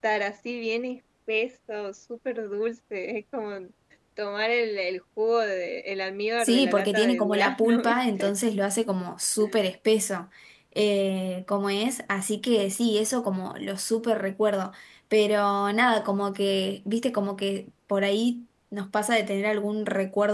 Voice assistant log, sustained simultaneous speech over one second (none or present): present